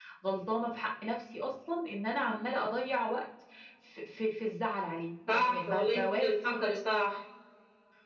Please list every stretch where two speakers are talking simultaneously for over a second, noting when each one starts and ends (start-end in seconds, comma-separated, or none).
5.3-6.7